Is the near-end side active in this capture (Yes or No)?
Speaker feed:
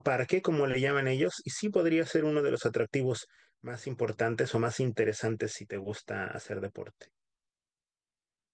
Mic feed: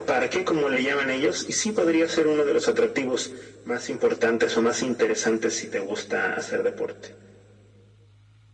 No